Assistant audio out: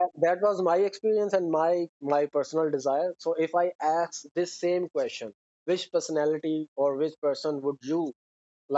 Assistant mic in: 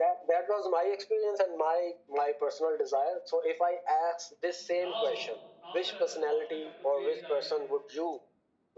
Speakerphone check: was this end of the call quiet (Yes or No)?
No